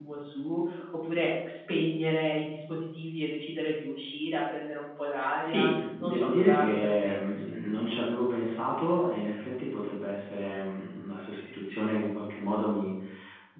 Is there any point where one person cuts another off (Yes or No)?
Yes